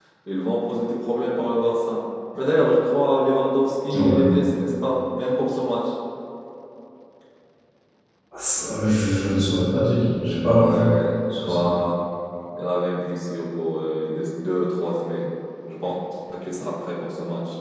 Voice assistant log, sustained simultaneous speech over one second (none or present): none